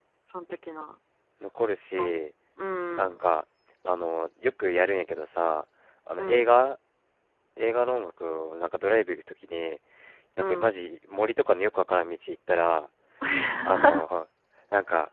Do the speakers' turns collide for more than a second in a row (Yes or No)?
No